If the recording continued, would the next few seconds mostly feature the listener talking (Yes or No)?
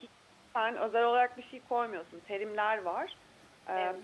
No